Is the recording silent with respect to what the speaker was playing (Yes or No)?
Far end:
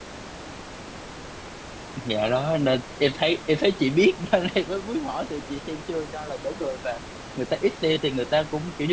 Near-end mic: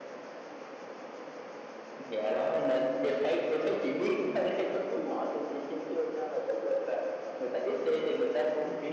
No